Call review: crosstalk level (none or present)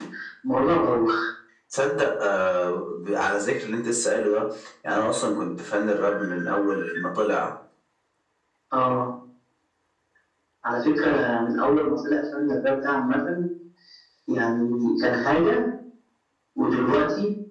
none